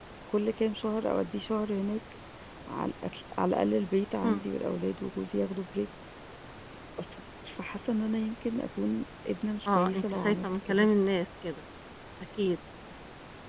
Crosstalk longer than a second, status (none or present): present